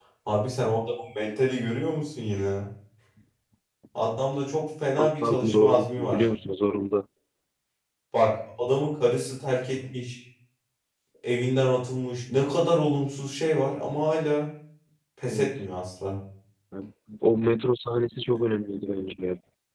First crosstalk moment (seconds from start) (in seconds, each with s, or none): 5.0 s